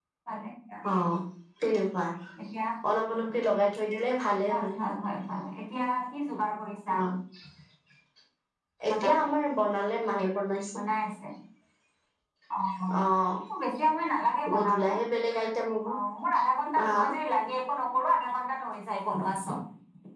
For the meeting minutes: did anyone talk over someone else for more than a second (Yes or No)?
No